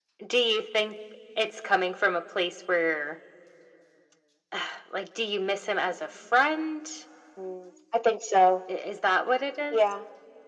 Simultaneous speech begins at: none

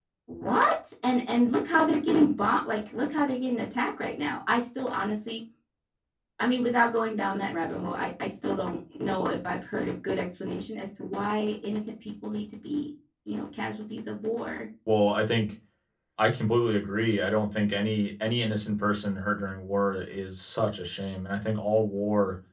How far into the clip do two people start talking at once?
none

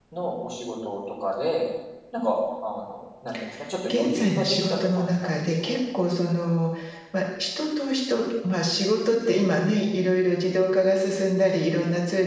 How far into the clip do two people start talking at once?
3.9 s

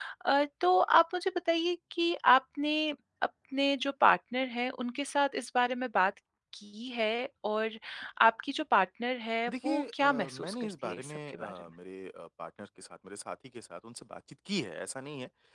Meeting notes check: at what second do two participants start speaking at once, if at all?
9.5 s

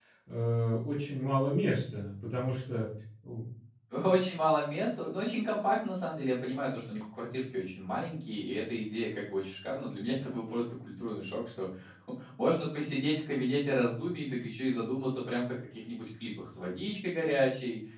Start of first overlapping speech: none

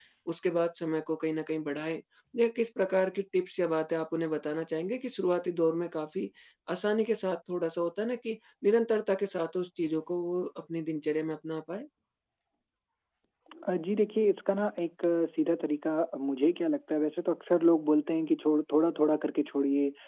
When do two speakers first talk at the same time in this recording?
none

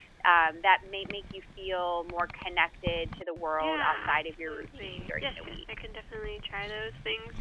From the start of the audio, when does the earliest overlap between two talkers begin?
3.5 s

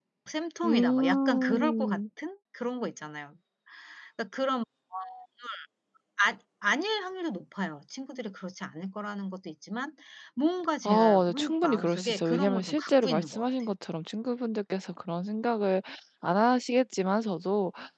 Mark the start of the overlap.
0.6 s

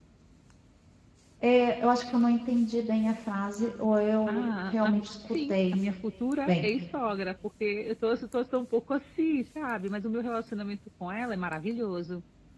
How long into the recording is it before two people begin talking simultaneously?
4.3 s

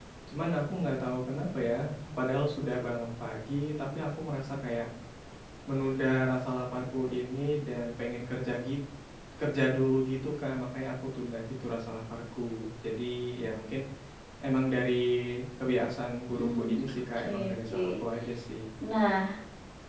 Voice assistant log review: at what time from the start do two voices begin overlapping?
16.4 s

